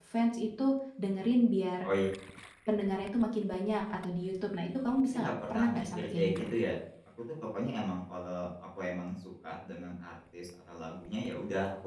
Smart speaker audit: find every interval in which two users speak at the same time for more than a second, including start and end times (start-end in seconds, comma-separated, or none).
5.0-6.5